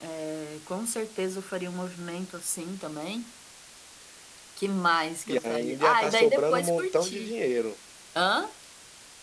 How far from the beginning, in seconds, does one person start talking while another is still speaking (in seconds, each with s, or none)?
5.3 s